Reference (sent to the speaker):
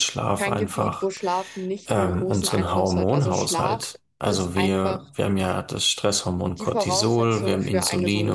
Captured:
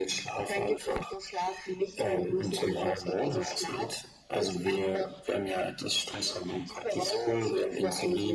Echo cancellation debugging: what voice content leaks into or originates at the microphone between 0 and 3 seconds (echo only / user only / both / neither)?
echo only